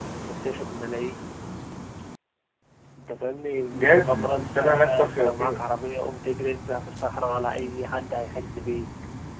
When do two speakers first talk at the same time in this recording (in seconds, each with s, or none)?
3.7 s